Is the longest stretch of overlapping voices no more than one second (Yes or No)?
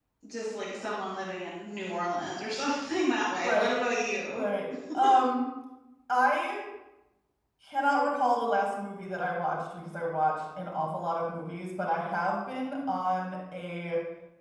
Yes